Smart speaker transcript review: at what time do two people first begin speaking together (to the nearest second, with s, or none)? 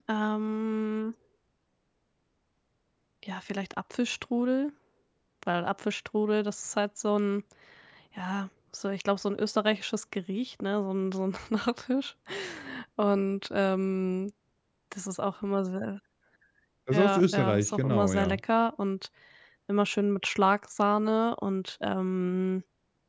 17 s